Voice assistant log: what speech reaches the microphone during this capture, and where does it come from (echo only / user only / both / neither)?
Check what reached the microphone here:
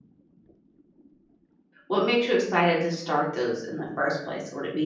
user only